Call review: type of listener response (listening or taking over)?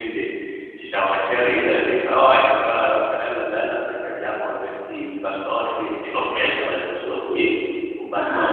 listening